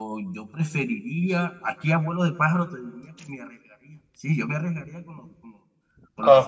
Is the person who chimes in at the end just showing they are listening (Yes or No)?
No